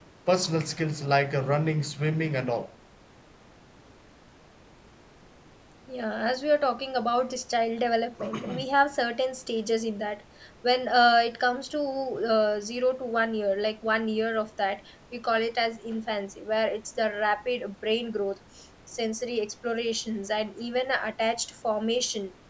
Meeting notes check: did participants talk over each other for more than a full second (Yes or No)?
No